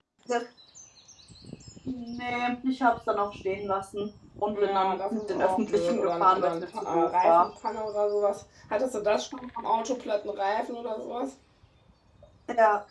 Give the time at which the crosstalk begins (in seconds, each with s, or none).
4.5 s